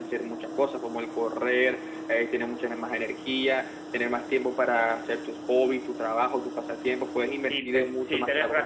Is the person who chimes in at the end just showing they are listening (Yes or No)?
No